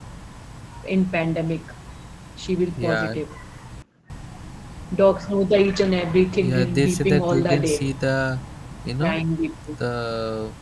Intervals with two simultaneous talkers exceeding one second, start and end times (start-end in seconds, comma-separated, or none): 6.4-7.8